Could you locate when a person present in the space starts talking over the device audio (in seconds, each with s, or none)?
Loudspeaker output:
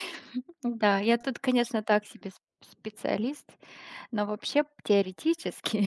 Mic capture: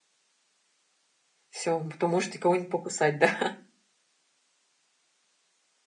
1.5 s